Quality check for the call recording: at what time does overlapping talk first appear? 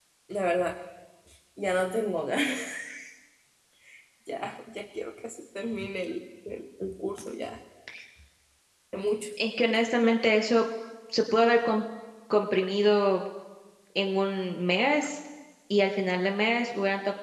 none

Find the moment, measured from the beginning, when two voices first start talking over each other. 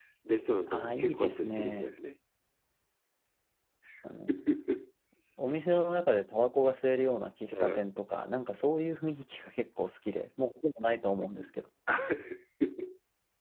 0.7 s

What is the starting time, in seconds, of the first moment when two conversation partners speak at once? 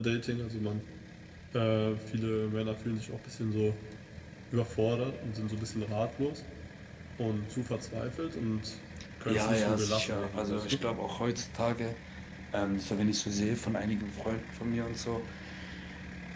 9.3 s

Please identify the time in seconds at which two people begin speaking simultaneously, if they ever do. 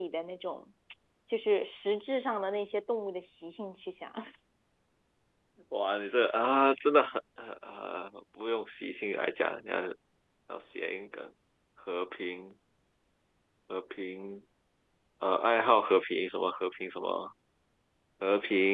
none

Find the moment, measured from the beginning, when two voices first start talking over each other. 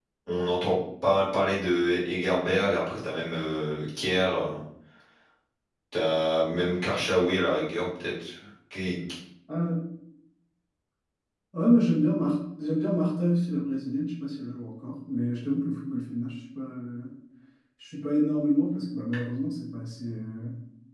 none

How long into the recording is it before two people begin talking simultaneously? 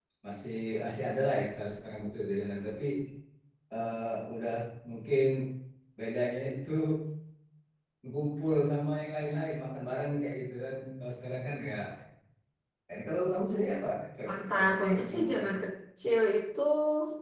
14.3 s

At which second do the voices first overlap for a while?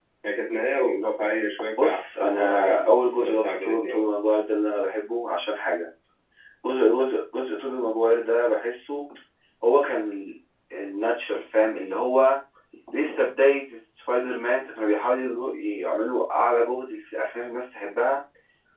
1.8 s

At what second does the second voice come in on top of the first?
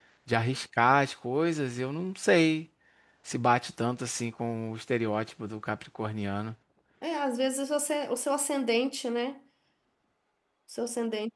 none

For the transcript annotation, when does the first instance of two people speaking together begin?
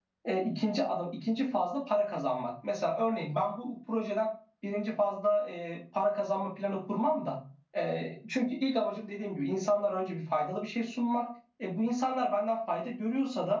none

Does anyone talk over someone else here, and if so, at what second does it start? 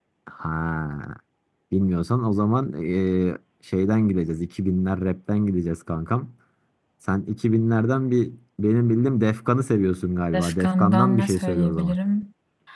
10.3 s

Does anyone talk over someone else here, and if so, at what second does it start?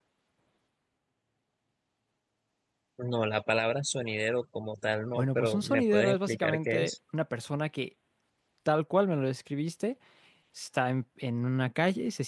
5.2 s

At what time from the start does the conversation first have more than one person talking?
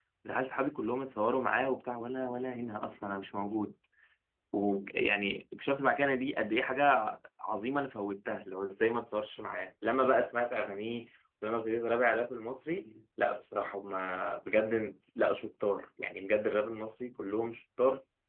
none

